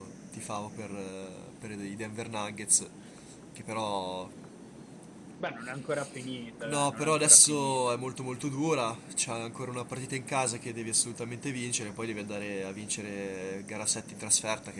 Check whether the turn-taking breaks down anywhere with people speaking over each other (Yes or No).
Yes